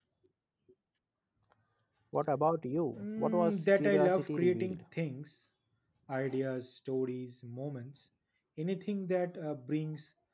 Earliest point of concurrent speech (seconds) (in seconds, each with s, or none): 2.9 s